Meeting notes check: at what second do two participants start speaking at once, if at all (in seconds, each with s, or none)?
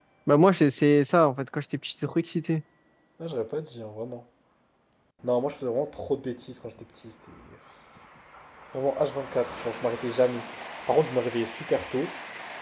none